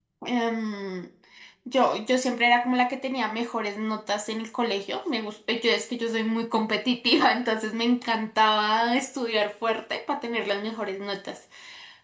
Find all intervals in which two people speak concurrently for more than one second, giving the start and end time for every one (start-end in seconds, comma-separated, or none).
none